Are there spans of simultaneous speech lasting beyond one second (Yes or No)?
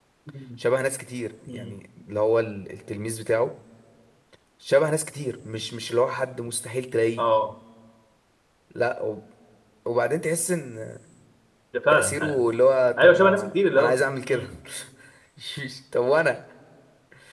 Yes